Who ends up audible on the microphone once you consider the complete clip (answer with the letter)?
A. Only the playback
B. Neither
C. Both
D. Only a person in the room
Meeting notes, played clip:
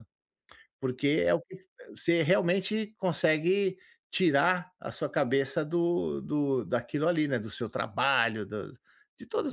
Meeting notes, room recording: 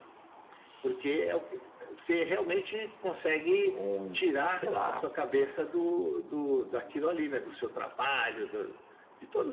C